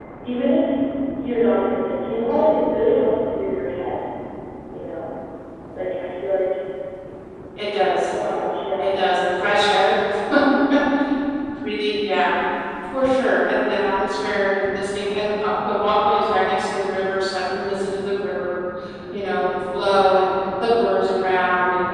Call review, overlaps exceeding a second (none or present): none